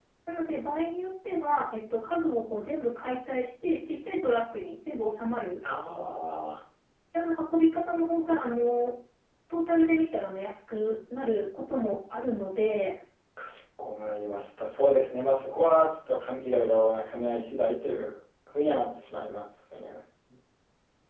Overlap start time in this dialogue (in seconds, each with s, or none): none